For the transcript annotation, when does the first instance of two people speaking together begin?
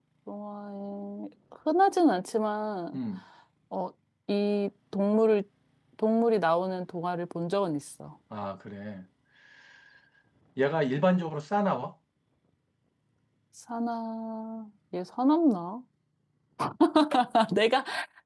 none

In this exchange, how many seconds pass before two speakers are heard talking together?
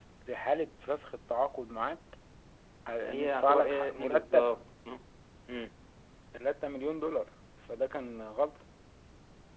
3.0 s

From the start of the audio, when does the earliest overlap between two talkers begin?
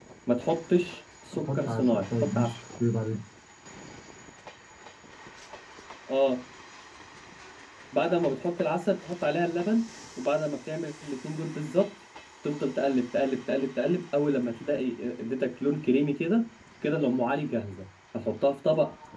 1.4 s

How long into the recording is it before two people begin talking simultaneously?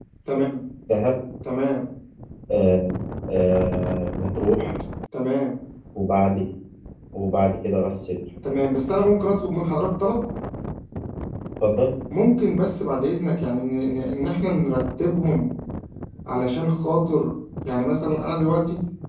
none

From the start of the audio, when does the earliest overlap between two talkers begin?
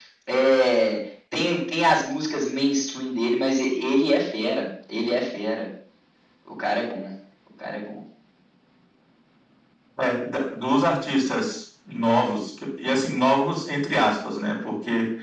none

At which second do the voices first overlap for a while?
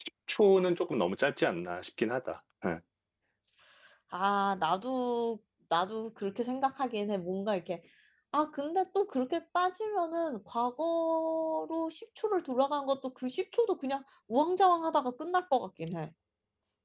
none

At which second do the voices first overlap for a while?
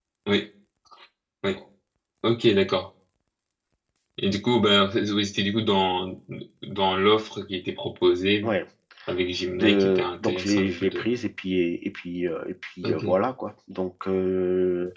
9.5 s

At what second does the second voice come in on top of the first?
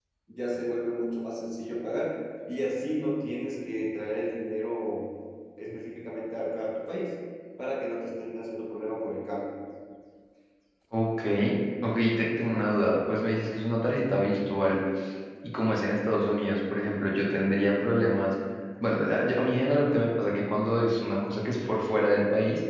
none

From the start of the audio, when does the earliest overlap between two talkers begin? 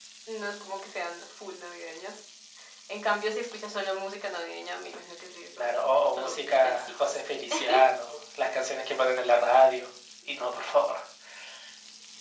5.6 s

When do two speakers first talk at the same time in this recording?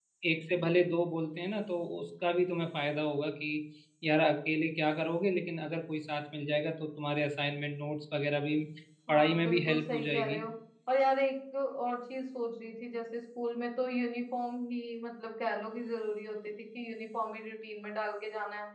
9.1 s

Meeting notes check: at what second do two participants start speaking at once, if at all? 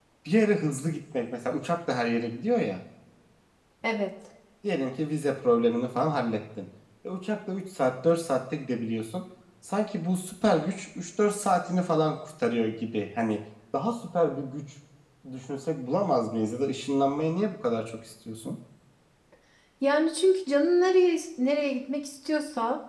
none

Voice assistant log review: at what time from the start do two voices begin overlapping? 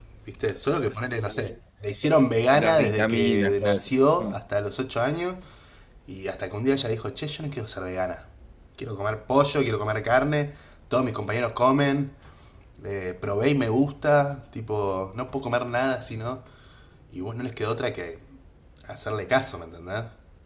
2.5 s

